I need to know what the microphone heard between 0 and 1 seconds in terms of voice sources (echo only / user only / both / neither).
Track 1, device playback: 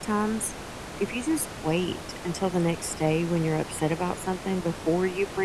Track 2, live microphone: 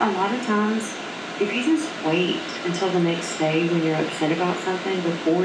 echo only